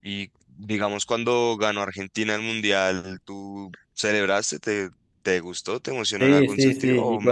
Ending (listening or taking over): taking over